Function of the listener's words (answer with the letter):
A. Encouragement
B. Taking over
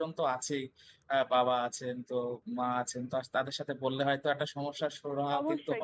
B